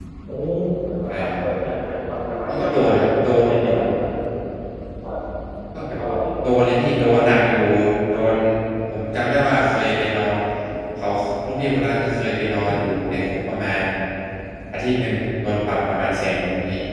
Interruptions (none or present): present